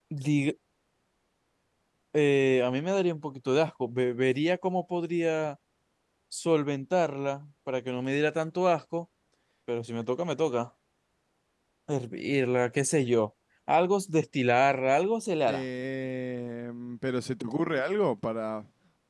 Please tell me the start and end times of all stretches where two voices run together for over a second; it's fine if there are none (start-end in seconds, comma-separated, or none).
none